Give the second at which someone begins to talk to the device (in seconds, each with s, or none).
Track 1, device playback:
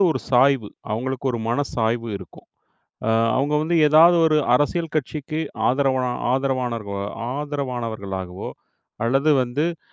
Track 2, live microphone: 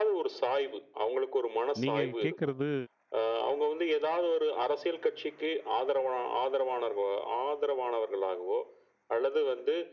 1.8 s